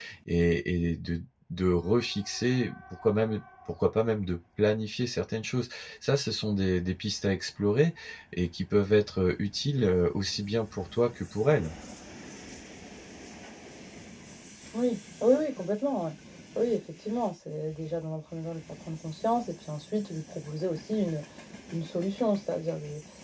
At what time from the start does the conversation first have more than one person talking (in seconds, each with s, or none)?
none